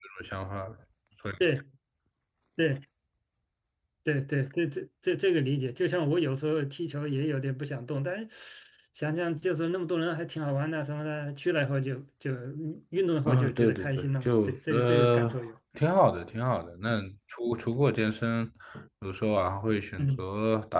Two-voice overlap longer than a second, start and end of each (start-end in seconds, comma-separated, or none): 13.3-15.3